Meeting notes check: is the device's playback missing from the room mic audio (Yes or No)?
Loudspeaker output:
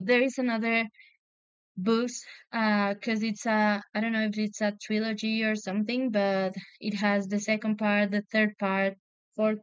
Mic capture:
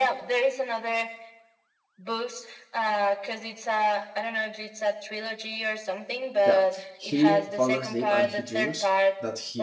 No